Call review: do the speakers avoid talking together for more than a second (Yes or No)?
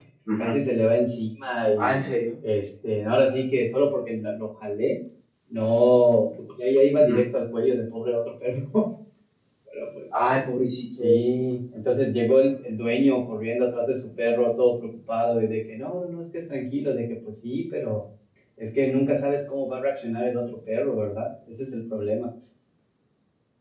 Yes